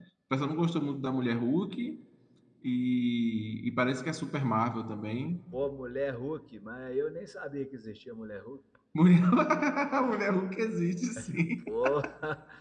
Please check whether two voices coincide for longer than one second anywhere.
No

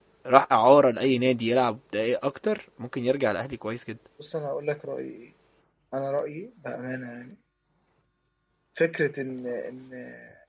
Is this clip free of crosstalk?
Yes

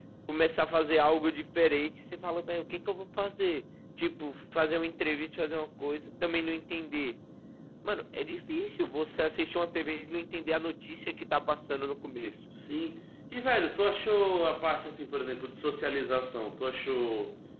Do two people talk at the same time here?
No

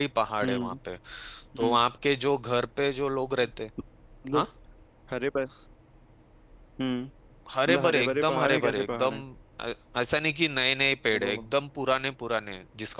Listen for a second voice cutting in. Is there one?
Yes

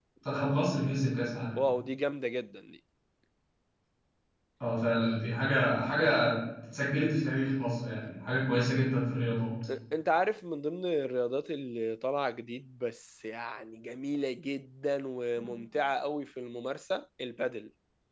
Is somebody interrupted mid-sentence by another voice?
No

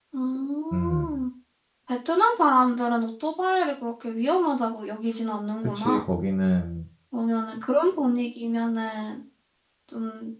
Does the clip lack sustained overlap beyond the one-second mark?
Yes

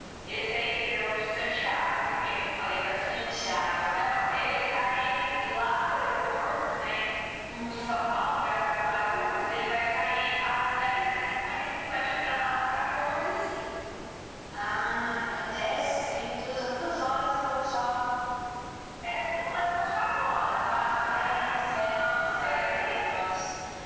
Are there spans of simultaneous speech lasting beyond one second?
Yes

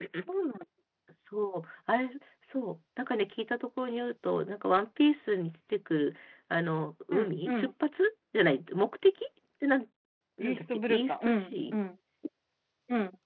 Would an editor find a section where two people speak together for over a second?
Yes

